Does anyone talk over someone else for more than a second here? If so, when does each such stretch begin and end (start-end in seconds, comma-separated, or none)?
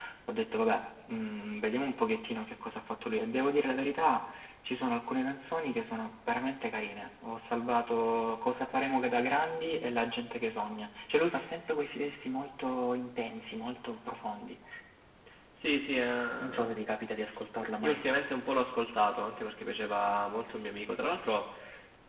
none